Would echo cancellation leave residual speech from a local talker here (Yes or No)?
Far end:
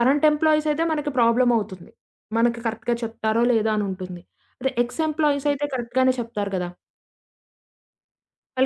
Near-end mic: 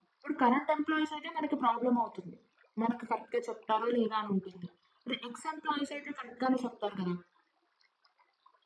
No